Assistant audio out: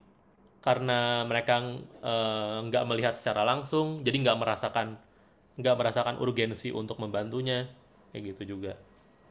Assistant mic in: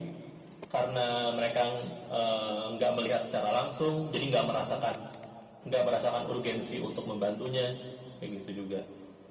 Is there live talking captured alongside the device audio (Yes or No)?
No